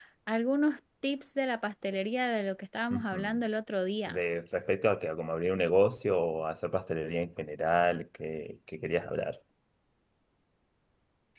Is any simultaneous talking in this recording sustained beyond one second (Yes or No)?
No